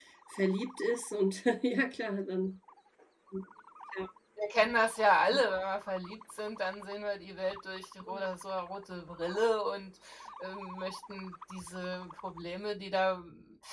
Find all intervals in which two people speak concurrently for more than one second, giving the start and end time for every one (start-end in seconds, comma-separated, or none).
none